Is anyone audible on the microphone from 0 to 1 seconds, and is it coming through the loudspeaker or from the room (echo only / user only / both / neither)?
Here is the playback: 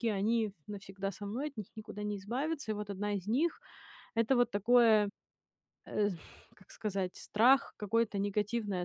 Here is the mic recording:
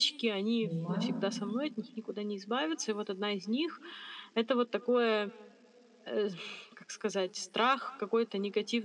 both